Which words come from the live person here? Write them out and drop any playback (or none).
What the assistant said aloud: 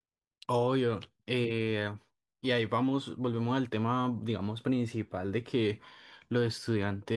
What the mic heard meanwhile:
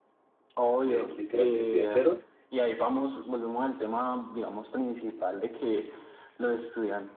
eh, literal, que estoy en ceros,